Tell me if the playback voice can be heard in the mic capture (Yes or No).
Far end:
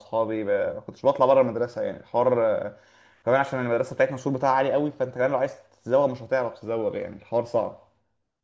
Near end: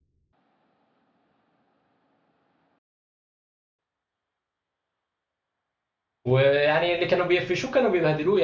No